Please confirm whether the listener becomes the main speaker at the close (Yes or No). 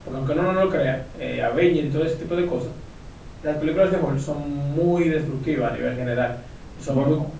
No